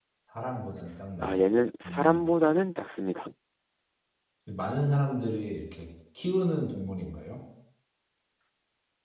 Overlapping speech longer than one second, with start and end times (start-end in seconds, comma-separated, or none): none